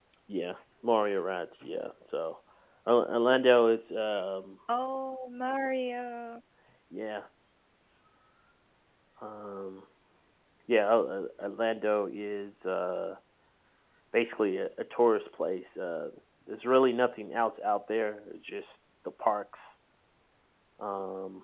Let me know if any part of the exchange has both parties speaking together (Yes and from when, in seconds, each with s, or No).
No